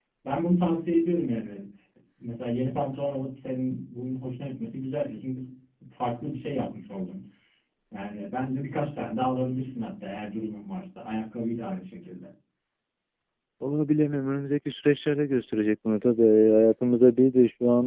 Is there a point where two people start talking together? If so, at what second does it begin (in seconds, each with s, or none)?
none